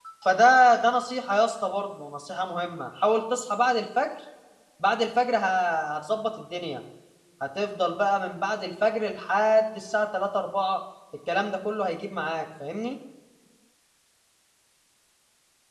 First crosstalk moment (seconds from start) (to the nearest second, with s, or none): none